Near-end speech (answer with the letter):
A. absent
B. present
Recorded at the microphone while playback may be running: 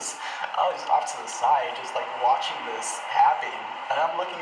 A